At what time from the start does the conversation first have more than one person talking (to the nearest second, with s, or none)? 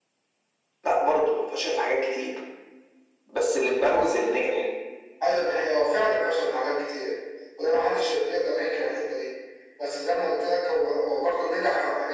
none